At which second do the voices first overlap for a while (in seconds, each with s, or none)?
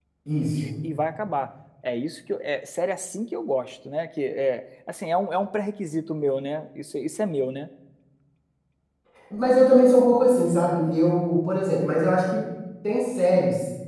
none